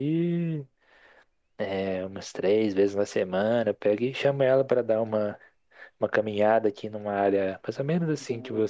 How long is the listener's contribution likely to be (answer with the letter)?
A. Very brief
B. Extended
A